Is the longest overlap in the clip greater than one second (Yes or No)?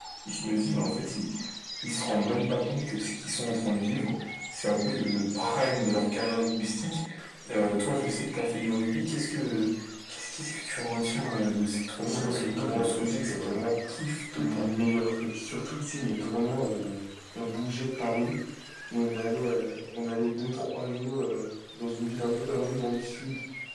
Yes